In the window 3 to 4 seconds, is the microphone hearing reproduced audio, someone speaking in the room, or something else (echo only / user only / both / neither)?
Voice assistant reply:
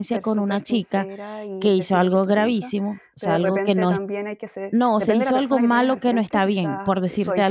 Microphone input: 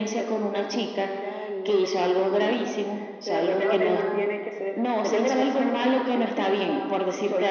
both